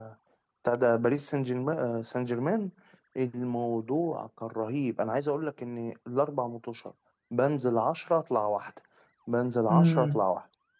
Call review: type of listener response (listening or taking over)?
listening